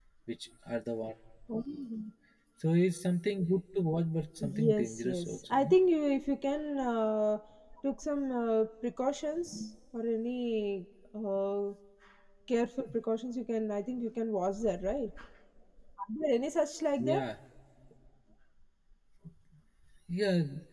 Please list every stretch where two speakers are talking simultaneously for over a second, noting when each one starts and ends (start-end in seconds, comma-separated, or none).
4.4-5.7